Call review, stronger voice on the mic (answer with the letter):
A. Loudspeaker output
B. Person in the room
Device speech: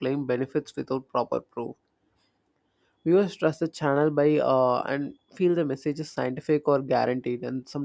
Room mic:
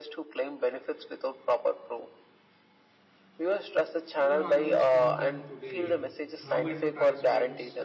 A